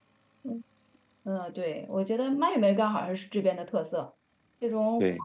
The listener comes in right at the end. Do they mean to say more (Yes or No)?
No